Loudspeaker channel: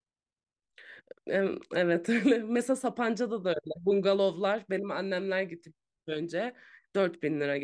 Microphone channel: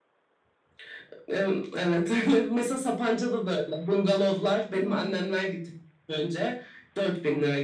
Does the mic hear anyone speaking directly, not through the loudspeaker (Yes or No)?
Yes